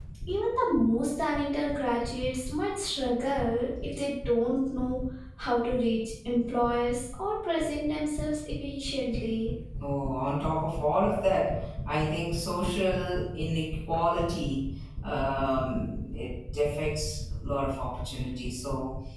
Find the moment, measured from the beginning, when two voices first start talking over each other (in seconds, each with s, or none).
none